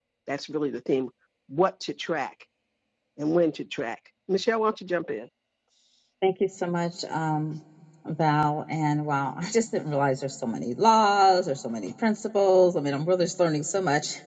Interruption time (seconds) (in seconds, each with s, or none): none